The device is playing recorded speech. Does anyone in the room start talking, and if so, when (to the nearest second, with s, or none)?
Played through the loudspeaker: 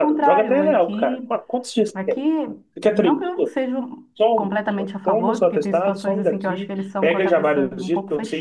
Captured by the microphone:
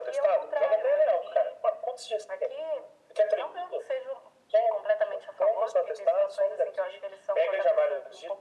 none